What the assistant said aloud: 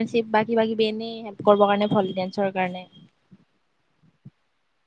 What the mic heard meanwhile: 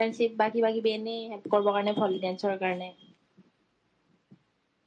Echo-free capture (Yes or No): No